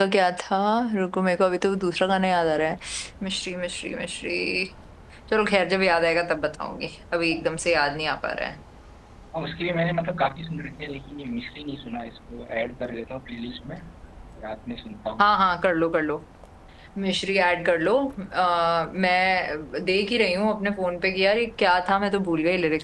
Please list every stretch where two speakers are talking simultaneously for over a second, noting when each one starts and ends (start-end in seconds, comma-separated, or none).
none